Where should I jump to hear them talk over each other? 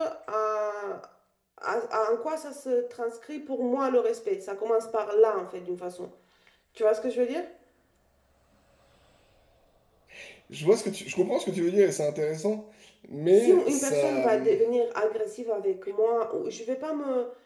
13 s

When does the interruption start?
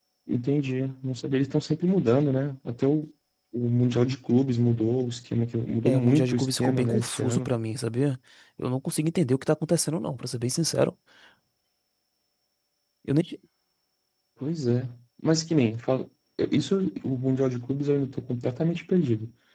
6 s

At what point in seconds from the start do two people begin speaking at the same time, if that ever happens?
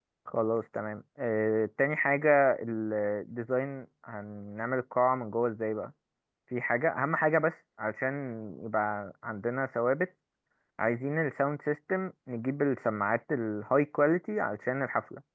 none

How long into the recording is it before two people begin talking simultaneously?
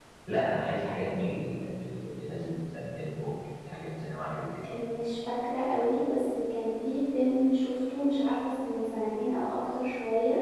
none

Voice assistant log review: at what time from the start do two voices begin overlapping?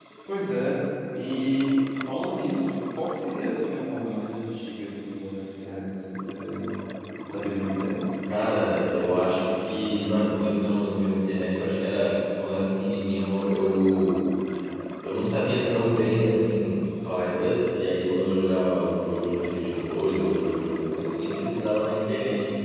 none

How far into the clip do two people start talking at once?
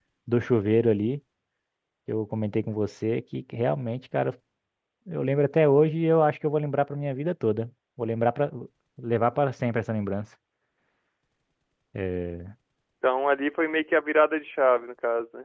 none

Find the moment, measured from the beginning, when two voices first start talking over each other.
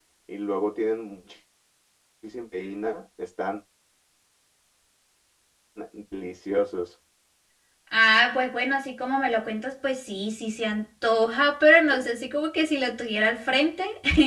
none

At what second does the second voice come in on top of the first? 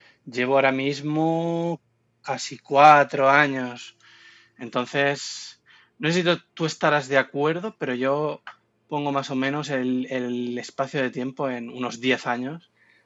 none

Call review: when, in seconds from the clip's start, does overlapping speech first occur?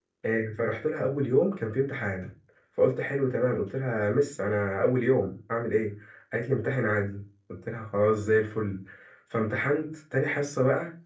none

